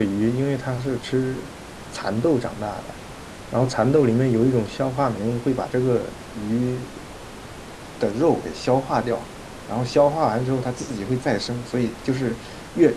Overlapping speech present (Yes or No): No